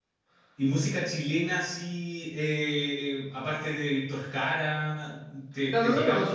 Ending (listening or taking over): taking over